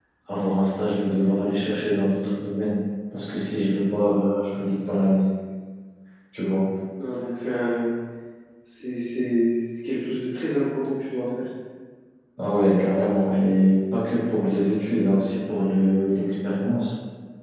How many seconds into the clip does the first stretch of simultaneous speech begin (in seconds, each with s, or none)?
none